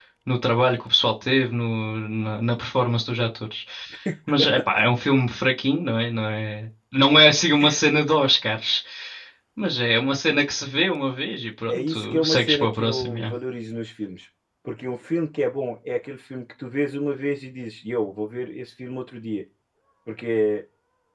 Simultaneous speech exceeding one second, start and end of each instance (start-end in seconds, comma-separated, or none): 11.7-13.2